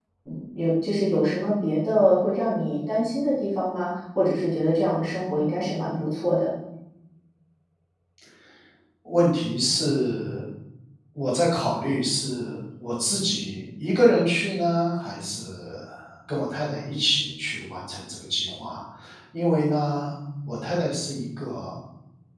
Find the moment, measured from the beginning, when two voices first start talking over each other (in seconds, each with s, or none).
none